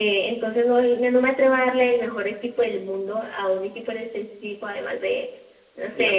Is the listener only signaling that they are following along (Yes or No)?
Yes